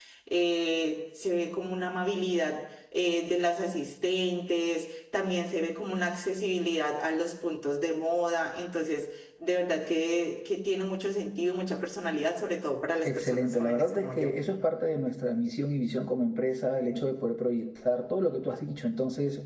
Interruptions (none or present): present